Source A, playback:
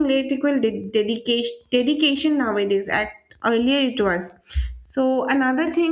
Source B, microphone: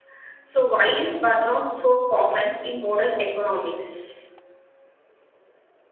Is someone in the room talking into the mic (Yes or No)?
Yes